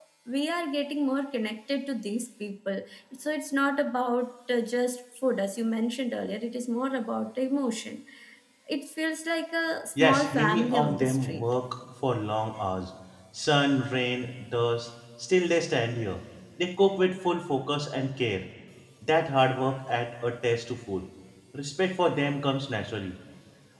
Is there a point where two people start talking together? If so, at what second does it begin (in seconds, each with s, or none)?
10.0 s